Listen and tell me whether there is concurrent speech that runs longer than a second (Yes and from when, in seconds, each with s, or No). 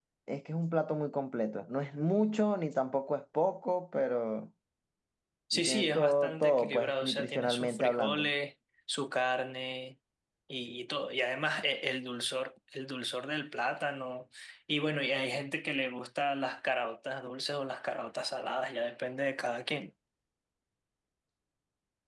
Yes, from 5.5 s